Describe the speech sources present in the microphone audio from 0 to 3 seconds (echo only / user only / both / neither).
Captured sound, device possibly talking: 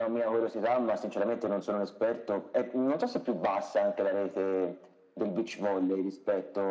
echo only